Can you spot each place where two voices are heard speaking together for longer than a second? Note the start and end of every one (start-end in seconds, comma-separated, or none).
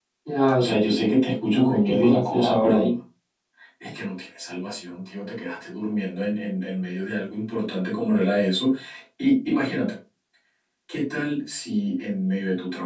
1.5-2.9